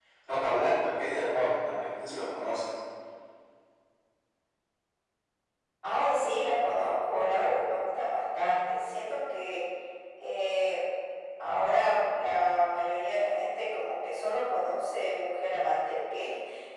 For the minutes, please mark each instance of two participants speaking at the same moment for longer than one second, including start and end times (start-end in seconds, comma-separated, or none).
none